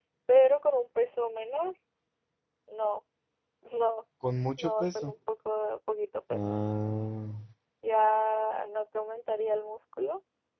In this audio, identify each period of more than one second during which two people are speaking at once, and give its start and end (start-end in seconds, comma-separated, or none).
none